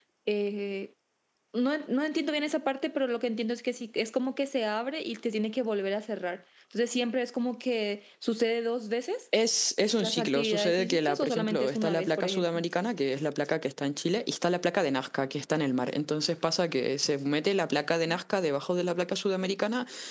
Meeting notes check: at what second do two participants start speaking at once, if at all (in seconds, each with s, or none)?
10.0 s